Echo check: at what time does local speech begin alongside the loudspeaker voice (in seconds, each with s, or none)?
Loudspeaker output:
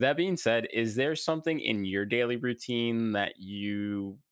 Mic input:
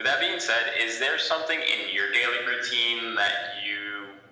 none